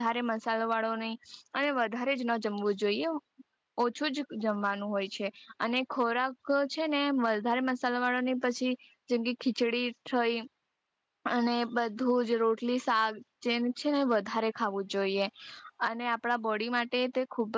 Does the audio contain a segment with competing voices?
No

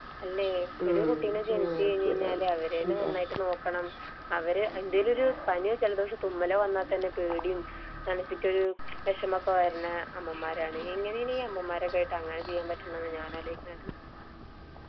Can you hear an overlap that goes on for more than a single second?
Yes, from 0.9 s

